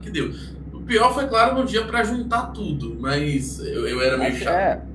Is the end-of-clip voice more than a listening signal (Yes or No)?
Yes